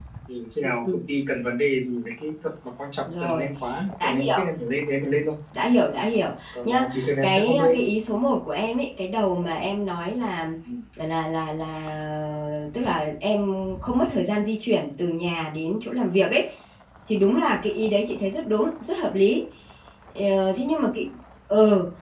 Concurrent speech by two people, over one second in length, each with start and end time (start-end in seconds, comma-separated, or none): 6.5-7.8